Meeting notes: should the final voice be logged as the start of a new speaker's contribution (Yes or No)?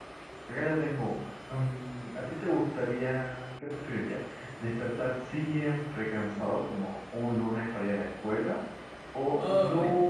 No